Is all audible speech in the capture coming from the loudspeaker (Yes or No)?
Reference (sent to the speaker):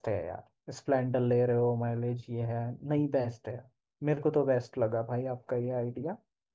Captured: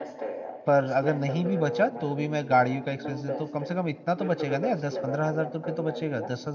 No